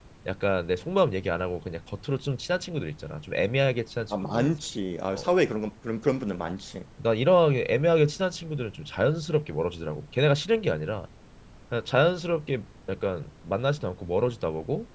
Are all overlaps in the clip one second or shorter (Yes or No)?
Yes